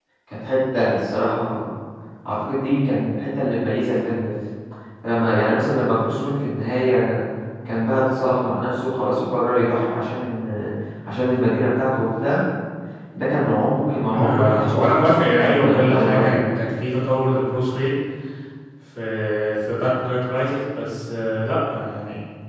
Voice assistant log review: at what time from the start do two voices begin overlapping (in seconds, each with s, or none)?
14.0 s